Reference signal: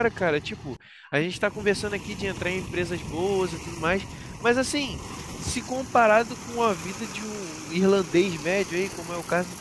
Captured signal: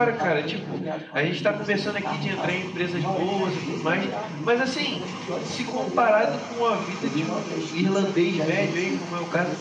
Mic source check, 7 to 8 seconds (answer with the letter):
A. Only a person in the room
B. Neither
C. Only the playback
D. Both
D